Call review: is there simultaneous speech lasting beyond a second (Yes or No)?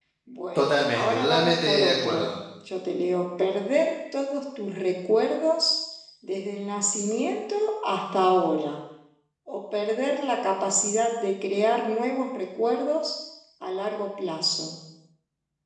Yes